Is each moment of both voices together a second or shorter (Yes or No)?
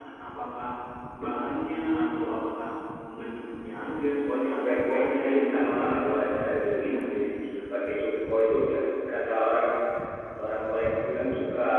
No